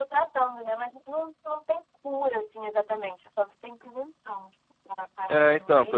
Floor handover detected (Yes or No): Yes